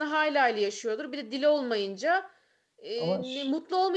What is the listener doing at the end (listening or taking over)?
listening